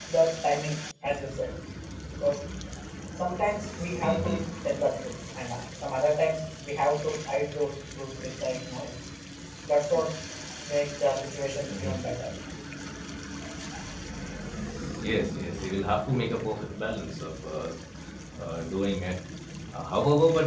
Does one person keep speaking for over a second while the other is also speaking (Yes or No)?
No